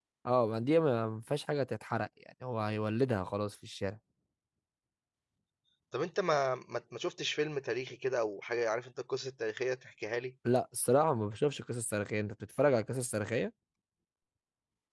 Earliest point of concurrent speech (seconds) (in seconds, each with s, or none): none